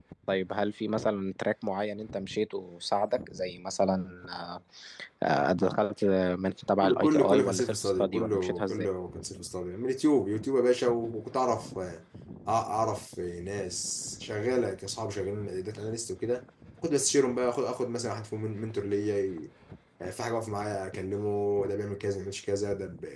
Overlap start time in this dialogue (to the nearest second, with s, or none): 7 s